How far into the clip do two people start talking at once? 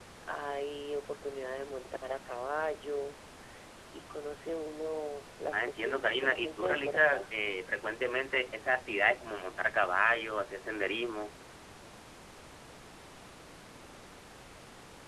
5.5 s

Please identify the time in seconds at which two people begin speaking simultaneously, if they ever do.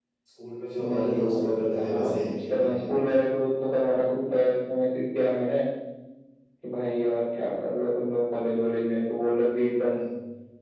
0.9 s

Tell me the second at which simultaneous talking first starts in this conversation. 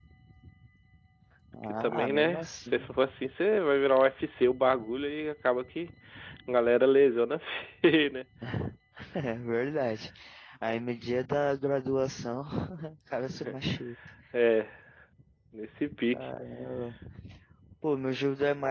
1.6 s

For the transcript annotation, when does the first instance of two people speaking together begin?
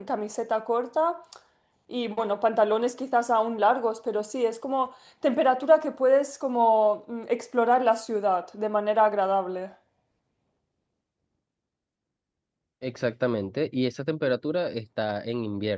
none

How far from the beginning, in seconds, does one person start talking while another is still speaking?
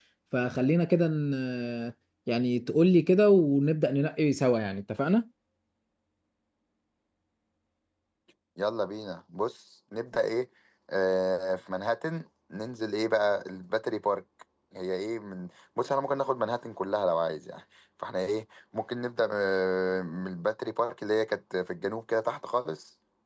none

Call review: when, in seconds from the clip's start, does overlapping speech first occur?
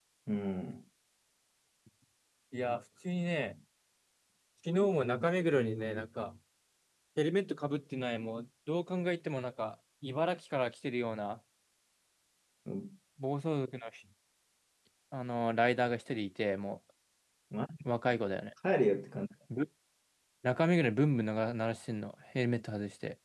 none

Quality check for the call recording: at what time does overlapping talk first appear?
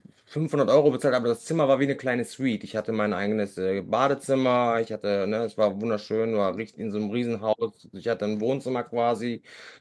none

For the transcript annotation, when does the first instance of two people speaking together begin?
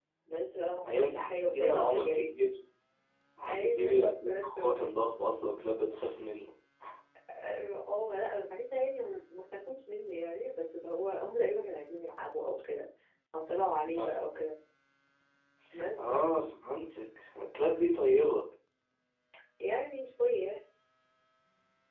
0.8 s

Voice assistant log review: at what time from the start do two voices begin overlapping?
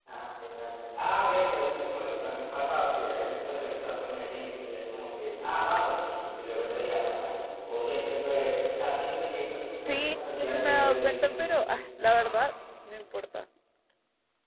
9.8 s

